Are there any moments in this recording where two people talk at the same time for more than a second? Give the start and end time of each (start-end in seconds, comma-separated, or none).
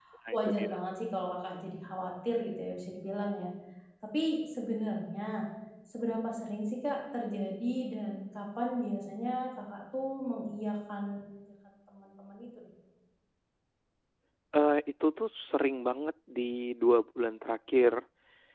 none